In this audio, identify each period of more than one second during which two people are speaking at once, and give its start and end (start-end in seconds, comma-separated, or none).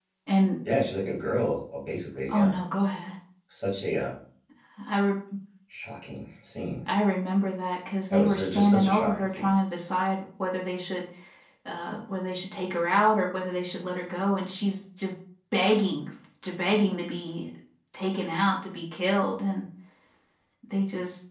8.1-9.5